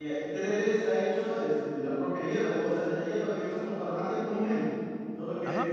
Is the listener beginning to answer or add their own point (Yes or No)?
Yes